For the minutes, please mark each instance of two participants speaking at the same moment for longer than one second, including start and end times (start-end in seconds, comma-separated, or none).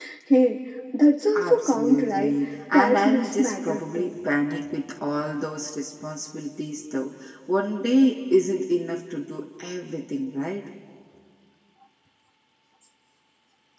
1.4-4.1